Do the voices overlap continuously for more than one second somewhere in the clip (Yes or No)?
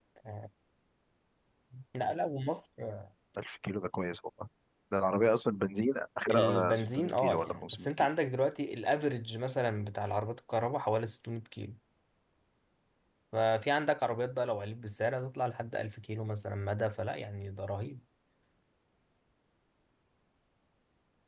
Yes